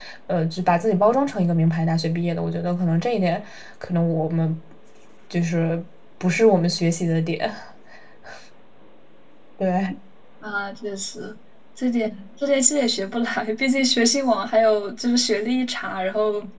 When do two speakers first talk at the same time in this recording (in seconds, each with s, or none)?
none